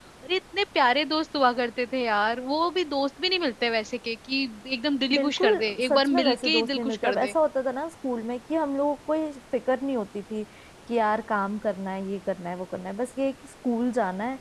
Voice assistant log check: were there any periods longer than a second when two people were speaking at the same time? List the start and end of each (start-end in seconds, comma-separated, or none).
5.1-7.3